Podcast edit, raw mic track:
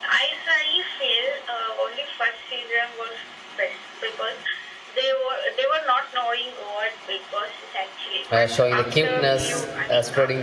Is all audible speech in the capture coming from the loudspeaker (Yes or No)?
No